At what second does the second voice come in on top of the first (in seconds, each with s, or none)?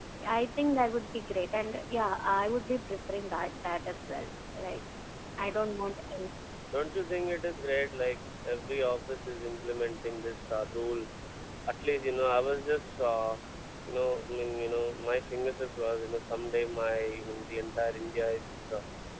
none